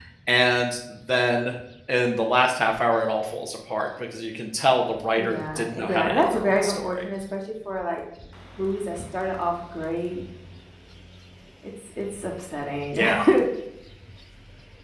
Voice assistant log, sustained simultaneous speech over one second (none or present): present